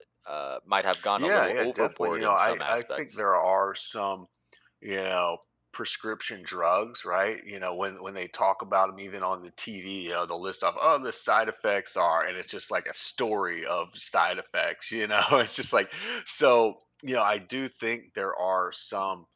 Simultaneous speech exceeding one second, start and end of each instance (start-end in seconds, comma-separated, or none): 1.2-3.2